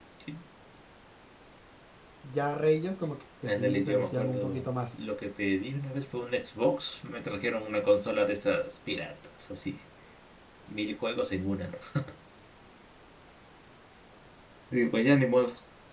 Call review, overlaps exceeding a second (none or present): present